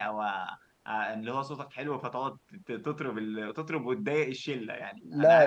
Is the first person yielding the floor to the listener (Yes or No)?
Yes